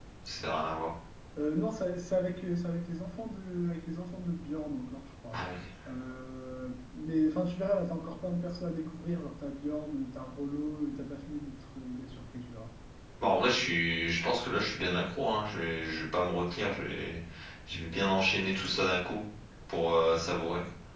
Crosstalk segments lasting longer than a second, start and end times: none

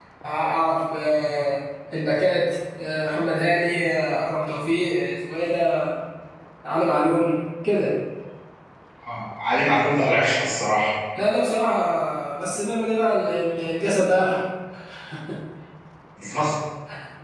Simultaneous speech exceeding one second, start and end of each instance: none

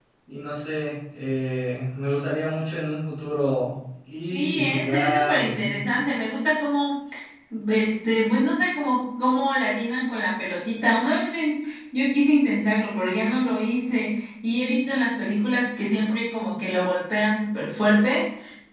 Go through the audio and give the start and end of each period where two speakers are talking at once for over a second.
4.3-5.8

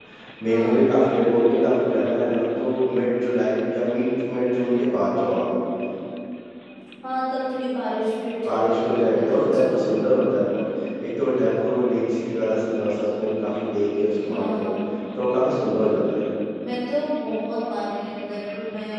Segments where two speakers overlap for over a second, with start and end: 8.5-10.3

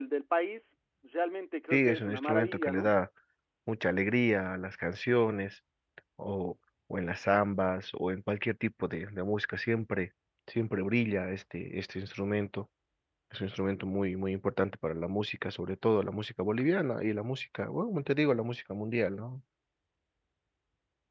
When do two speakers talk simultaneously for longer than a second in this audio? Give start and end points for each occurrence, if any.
1.7-2.9

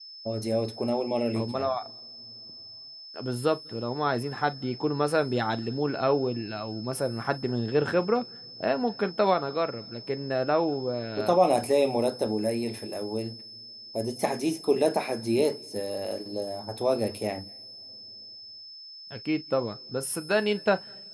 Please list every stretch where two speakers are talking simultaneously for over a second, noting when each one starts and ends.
none

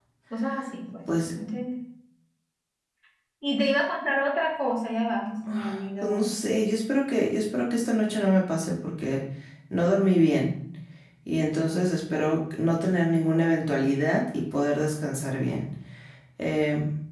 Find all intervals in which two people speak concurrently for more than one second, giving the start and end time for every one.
none

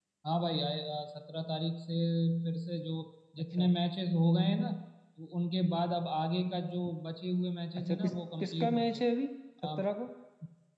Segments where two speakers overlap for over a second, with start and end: 7.8-9.0

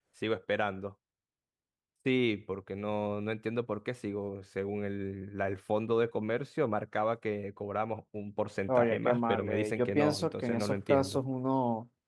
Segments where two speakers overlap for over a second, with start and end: 8.7-11.2

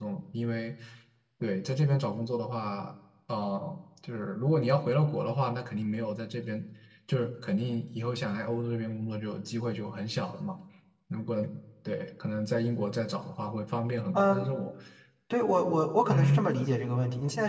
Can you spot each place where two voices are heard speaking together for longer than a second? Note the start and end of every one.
none

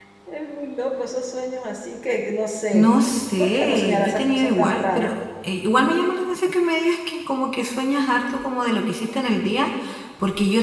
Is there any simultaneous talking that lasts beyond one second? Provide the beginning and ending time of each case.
3.4-5.2

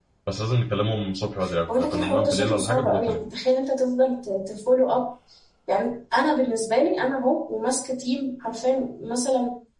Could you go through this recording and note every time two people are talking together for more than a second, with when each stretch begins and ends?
1.7-3.1

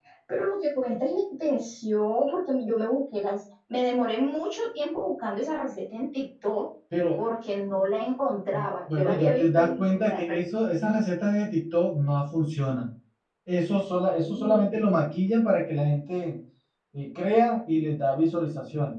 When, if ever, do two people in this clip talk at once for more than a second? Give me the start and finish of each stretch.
8.9-10.4

